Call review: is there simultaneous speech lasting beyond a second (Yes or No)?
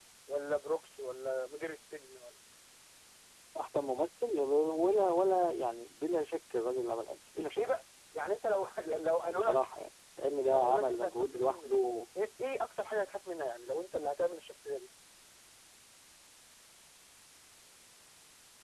Yes